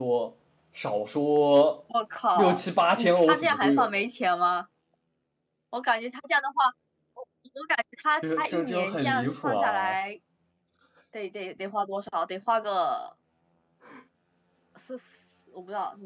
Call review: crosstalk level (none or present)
present